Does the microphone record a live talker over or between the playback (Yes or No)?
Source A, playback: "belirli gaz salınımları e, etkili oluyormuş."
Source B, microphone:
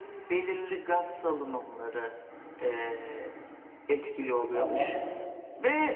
Yes